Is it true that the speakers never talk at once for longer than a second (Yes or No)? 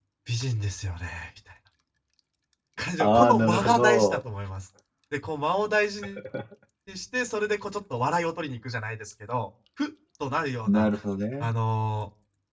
No